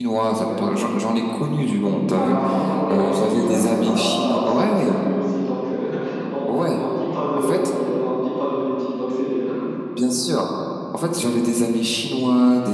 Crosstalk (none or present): present